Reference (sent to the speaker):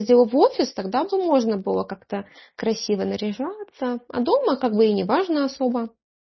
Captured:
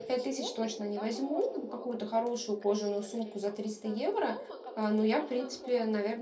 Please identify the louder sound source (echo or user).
user